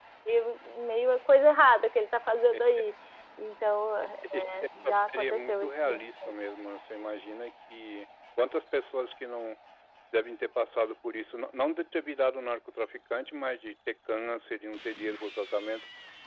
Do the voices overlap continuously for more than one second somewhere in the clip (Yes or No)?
Yes